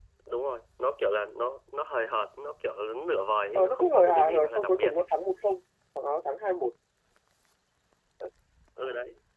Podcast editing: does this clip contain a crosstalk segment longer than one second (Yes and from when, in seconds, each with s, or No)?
Yes, from 3.5 s